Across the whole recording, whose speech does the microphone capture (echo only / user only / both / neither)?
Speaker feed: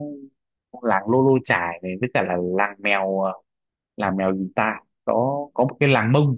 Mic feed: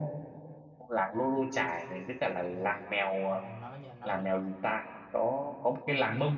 both